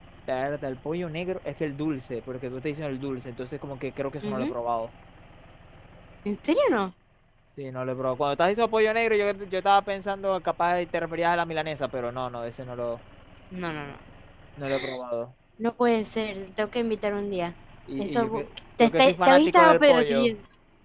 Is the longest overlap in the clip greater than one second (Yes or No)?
Yes